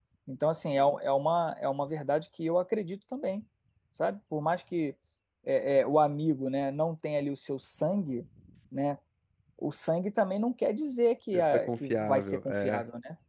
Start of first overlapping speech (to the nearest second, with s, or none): 11 s